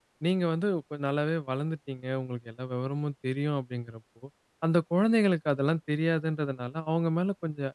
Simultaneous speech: No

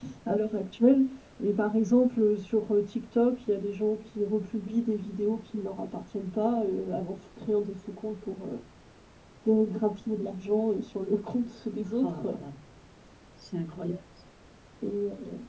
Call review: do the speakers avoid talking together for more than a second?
Yes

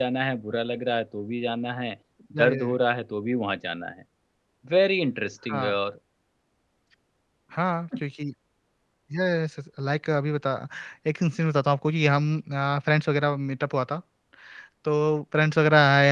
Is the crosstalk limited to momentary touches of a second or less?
Yes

